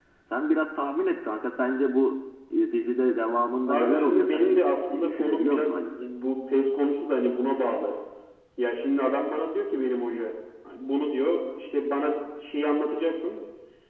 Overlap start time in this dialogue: 3.7 s

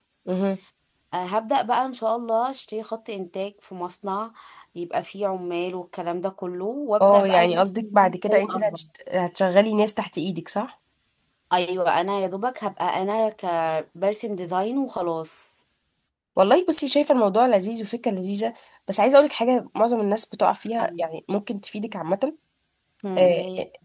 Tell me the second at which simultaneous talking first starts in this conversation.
7.0 s

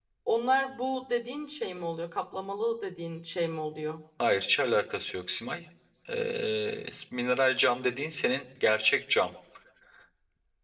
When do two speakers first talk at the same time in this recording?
none

